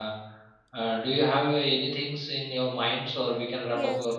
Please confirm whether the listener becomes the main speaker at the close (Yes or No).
Yes